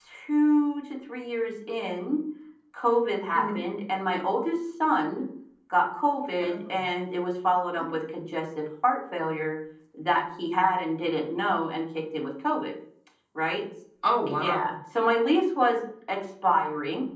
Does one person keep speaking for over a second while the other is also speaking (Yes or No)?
No